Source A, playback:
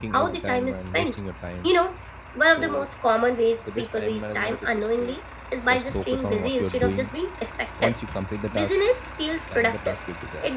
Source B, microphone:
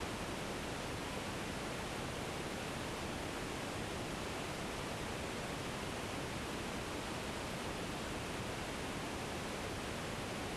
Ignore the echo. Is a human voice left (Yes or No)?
No